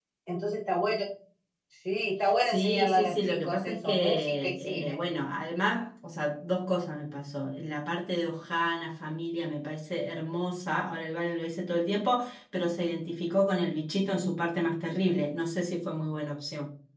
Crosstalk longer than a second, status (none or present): present